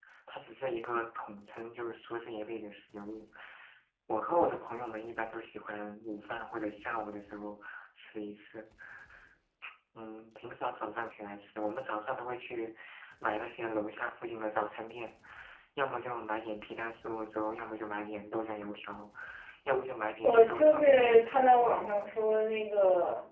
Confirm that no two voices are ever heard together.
No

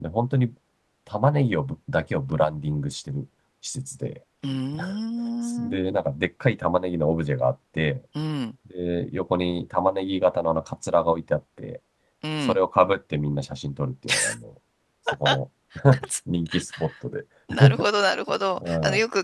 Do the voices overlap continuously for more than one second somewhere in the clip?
No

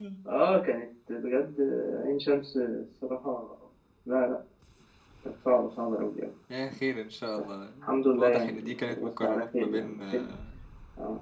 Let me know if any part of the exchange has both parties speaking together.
Yes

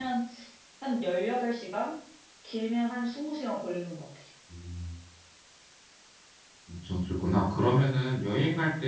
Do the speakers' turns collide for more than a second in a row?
No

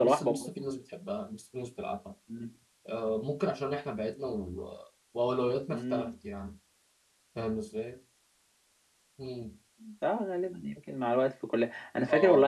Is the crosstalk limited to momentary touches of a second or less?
Yes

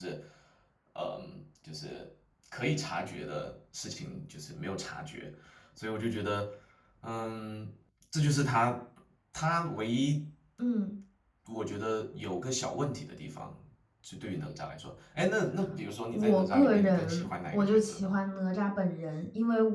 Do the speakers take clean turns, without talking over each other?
No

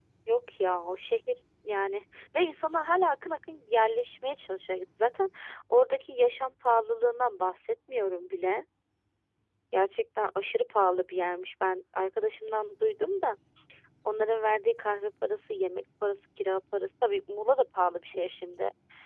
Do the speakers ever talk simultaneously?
No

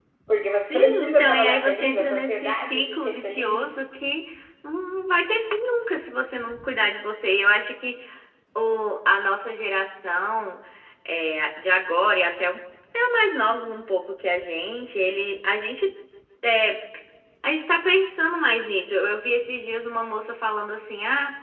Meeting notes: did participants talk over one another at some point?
Yes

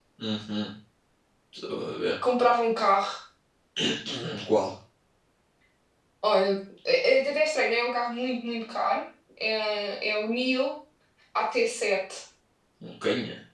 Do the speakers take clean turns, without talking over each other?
Yes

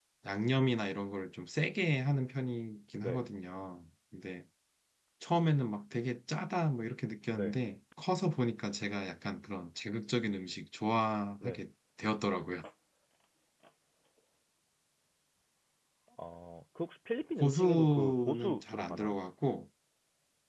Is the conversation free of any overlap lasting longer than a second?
No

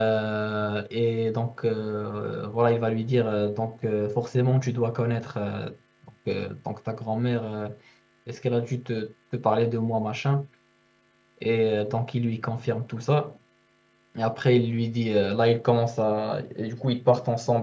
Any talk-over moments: No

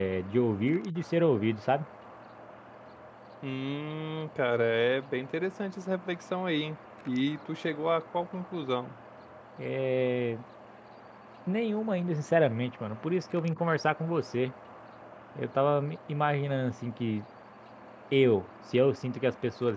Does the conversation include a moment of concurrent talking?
No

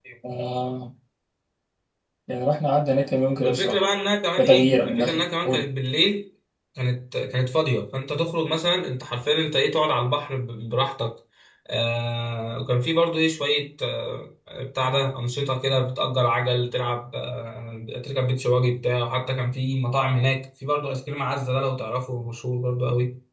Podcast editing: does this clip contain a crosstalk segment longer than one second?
Yes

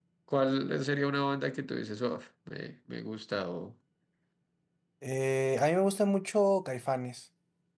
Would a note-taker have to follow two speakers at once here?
No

